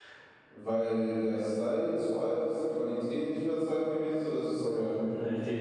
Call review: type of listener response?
taking over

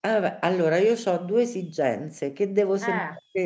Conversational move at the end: listening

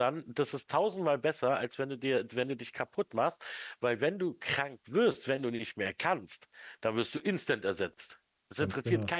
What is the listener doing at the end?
listening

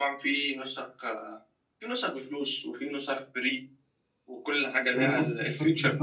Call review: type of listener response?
taking over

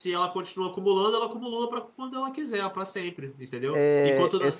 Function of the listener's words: taking over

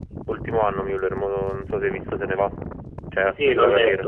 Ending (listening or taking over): taking over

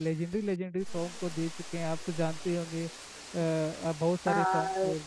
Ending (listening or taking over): taking over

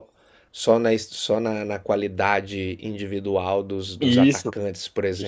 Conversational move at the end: taking over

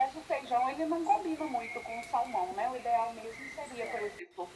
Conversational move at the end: listening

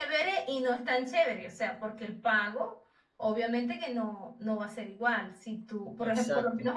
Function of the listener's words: listening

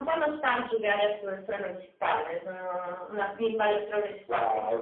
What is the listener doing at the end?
taking over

